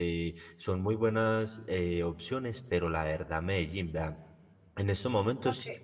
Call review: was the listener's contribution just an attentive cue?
Yes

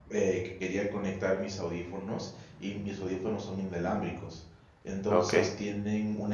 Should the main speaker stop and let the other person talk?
No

